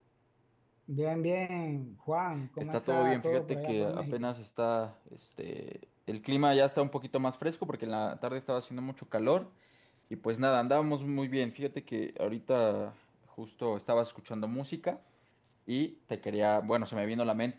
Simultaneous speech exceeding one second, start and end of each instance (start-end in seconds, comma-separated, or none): 2.6-4.3